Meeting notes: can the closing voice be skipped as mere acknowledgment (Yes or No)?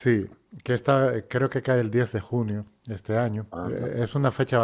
Yes